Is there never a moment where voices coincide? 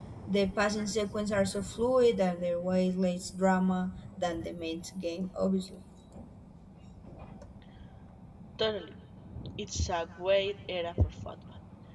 Yes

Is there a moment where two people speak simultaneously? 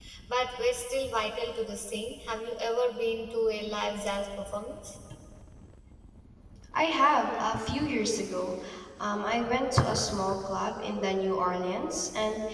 No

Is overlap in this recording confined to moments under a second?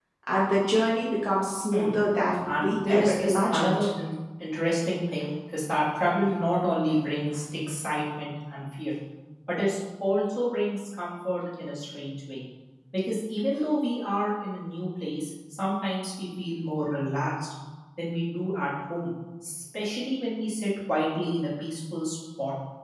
No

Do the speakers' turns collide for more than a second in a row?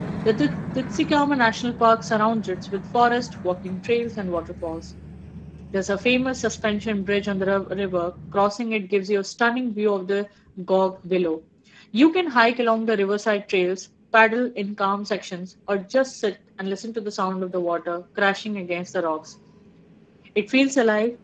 No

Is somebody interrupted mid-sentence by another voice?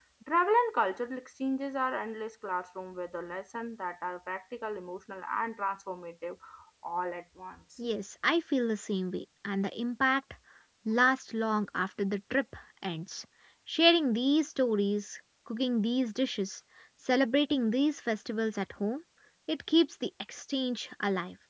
No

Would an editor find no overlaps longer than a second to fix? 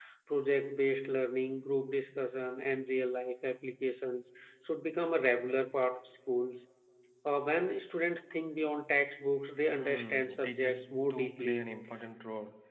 No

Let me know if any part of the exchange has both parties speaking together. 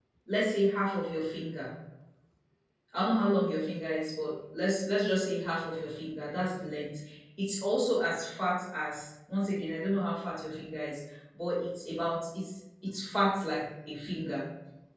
No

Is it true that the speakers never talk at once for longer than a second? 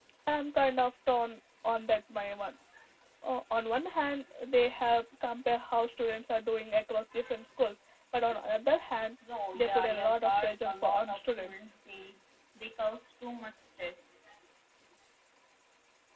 No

